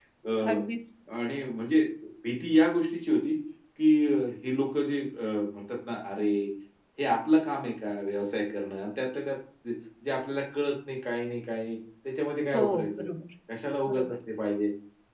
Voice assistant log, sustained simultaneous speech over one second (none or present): none